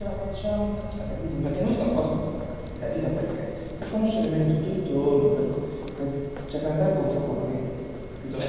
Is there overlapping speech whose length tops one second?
No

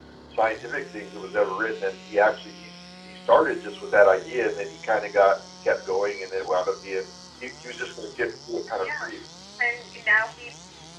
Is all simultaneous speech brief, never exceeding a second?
Yes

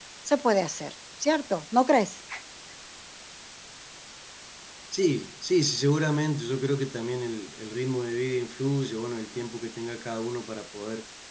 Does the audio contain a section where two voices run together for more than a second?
No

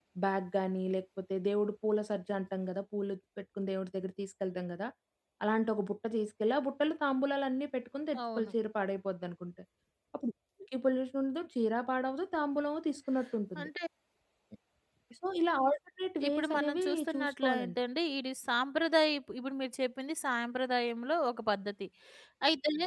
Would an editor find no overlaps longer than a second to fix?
No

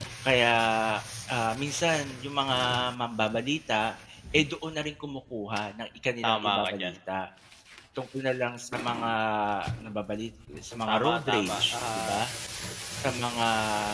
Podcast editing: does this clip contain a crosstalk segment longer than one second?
Yes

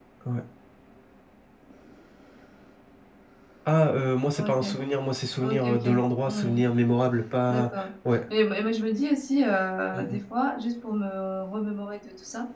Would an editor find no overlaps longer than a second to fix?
Yes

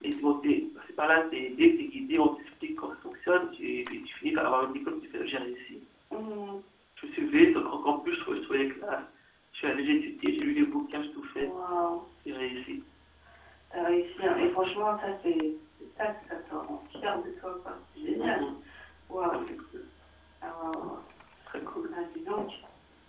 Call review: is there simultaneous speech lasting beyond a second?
No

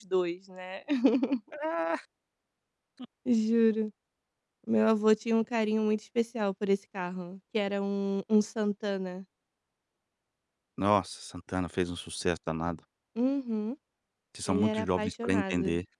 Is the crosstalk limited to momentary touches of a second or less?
No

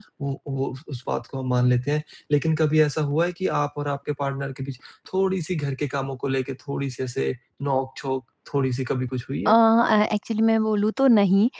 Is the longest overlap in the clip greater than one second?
No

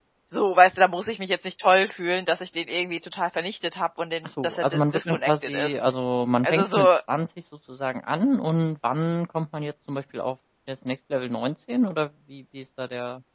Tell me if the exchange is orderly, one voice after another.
No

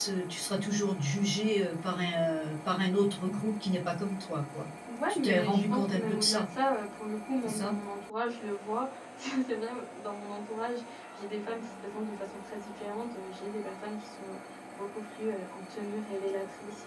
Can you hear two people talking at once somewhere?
Yes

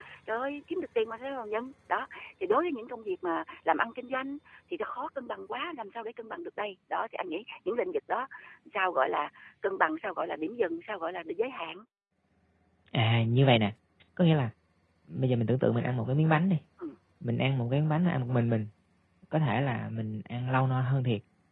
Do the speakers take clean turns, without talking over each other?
Yes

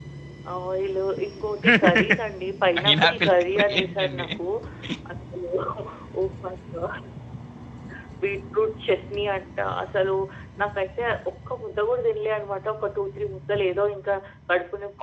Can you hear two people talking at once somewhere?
Yes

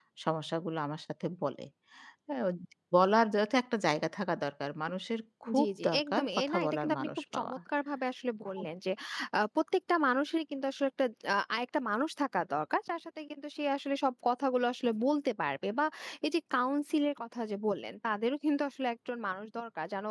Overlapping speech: Yes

